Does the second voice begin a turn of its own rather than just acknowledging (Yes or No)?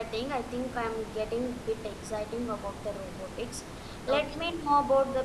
No